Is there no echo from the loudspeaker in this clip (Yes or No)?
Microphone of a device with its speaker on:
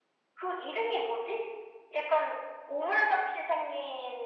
No